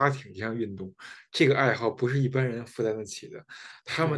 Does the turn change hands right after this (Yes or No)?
Yes